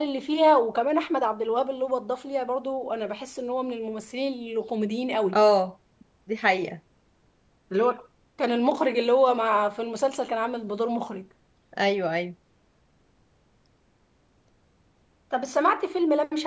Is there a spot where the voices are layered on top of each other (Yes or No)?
No